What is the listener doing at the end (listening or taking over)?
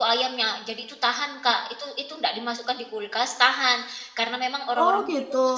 listening